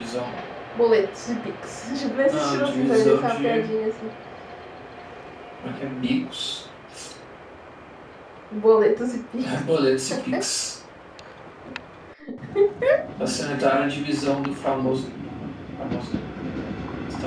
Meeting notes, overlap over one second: present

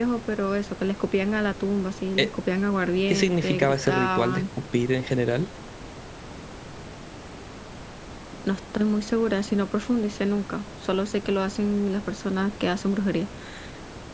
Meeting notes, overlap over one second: present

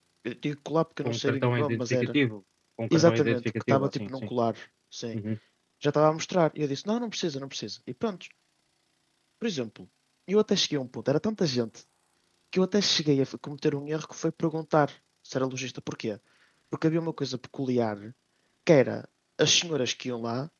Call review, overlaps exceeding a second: present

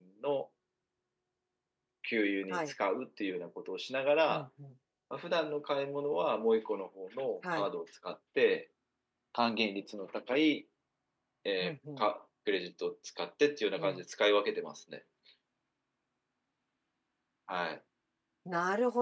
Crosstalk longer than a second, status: none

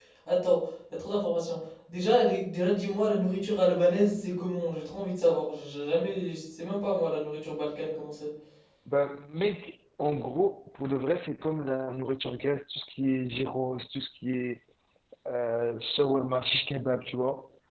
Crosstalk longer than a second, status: none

